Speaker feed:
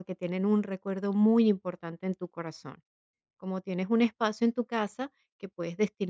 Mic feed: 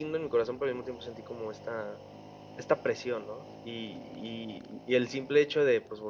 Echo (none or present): none